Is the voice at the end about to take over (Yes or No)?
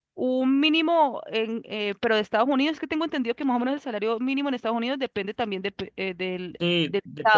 Yes